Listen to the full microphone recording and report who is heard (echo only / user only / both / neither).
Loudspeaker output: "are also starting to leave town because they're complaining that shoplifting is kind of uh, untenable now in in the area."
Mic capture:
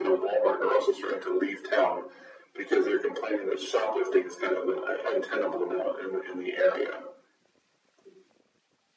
echo only